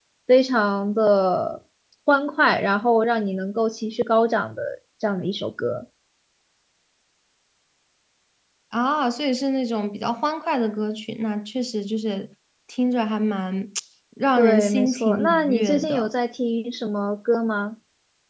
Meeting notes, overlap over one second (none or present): present